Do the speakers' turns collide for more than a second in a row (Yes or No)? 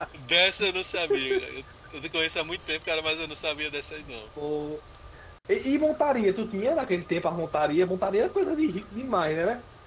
No